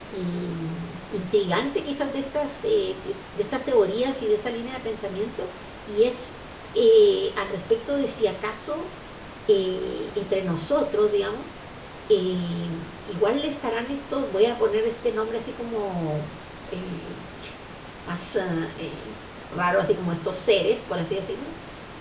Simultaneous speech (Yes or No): No